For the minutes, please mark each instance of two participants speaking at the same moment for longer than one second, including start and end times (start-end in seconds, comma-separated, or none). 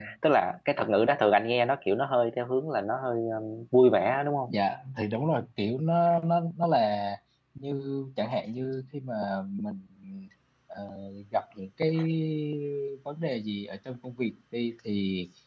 none